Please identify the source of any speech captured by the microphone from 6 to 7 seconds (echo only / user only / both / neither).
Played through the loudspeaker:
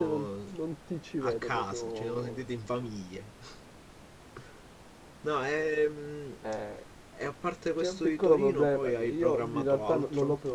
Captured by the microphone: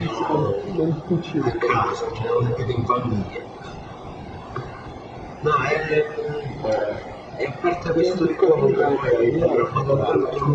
echo only